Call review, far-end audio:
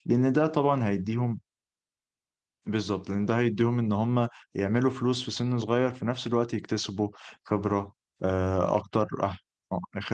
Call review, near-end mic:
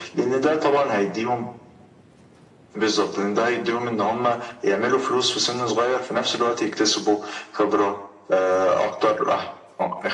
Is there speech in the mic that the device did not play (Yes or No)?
No